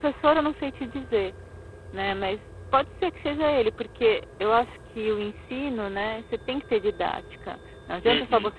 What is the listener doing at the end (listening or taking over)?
listening